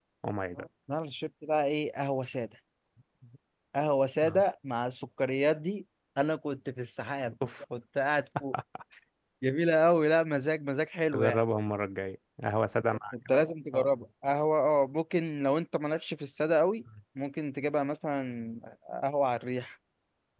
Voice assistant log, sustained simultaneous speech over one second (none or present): none